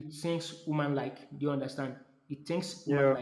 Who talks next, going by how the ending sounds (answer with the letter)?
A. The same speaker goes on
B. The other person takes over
A